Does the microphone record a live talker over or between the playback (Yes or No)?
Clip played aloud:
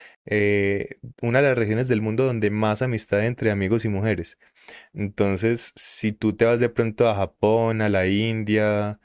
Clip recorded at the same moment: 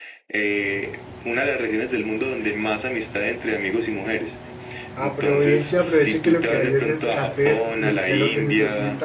Yes